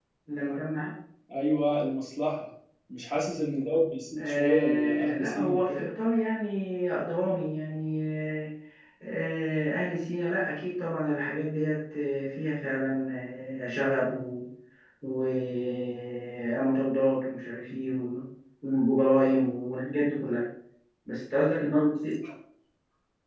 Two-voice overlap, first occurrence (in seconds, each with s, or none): 4.2 s